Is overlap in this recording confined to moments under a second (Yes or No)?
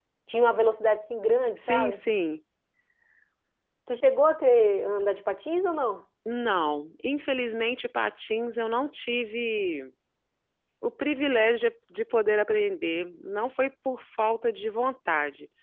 Yes